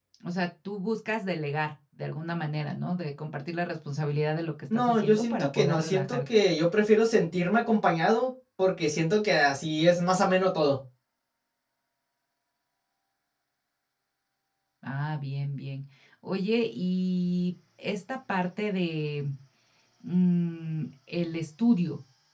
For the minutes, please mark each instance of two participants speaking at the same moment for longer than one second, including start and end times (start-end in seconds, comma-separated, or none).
4.7-6.4